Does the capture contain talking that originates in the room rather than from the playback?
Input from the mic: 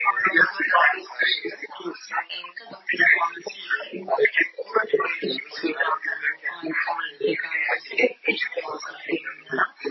No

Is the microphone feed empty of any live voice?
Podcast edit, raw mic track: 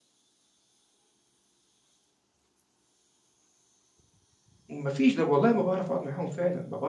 No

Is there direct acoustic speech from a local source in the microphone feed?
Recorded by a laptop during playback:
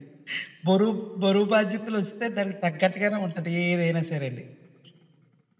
No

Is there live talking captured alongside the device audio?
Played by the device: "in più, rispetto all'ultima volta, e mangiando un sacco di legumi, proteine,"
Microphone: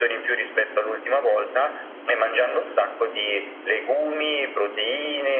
No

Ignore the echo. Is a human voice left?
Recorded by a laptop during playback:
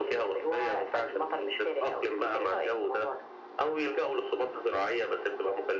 No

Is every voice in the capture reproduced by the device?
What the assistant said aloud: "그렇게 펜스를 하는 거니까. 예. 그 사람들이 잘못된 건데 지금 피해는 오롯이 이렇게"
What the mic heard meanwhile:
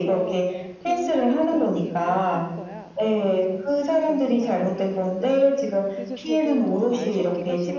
No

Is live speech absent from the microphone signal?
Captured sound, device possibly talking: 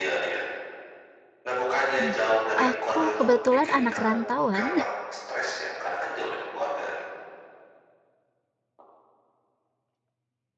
No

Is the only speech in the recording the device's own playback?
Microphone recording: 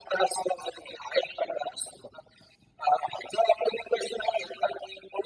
Yes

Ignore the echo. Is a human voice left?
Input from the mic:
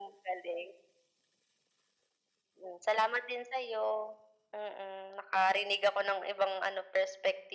No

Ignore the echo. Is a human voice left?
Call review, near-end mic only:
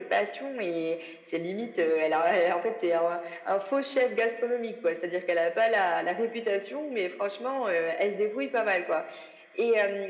No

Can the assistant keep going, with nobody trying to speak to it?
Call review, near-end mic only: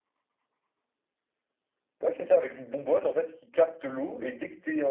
Yes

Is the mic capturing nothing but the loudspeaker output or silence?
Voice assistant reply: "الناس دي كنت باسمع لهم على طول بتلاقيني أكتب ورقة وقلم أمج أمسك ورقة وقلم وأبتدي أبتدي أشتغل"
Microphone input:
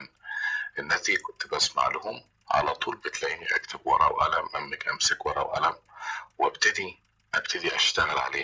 Yes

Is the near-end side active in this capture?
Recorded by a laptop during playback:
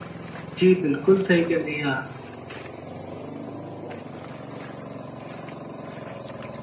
Yes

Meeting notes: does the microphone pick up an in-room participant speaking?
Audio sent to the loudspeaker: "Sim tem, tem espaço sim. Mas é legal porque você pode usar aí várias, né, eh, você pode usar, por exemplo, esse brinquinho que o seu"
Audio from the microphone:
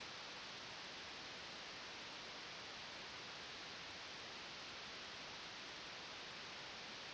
No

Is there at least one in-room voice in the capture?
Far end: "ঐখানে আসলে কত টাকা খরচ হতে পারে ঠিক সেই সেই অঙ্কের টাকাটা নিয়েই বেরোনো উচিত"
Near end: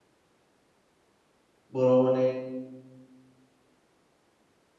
Yes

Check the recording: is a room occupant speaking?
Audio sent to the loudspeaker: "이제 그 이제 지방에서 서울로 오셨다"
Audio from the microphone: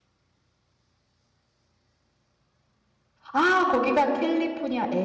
Yes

